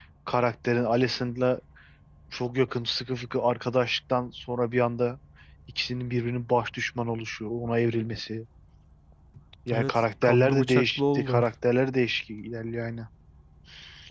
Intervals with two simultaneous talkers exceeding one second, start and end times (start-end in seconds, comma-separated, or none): 9.7-11.4